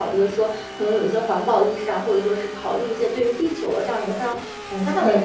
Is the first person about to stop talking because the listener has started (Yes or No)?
No